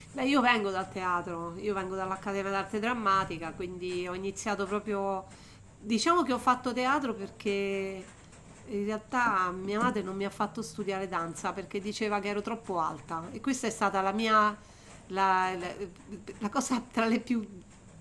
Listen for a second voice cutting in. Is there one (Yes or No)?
No